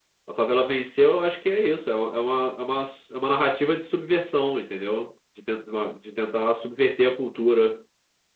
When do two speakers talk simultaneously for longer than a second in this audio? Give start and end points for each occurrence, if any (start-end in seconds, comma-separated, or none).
none